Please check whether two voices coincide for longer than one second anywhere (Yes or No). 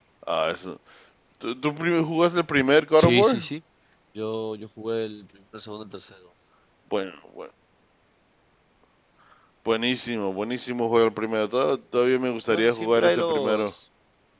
Yes